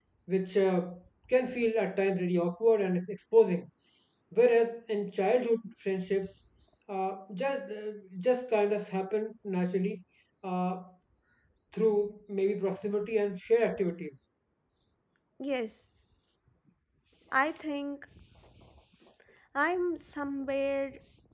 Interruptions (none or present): none